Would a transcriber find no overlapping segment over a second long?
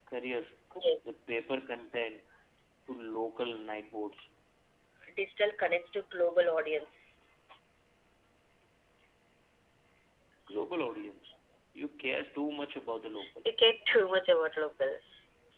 Yes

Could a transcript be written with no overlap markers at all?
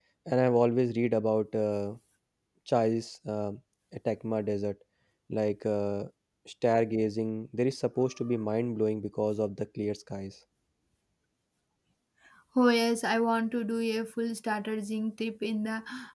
Yes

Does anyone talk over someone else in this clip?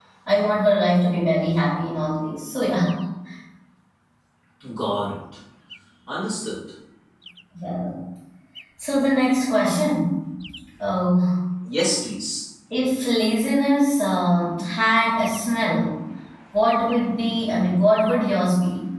No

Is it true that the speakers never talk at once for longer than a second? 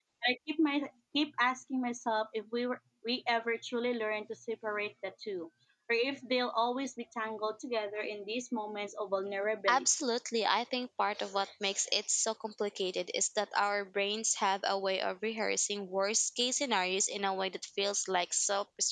Yes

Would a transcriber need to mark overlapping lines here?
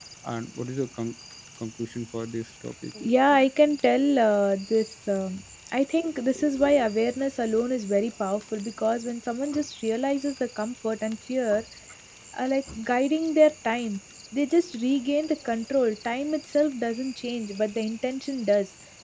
No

